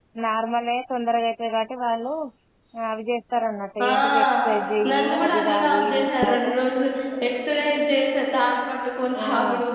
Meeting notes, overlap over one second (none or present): present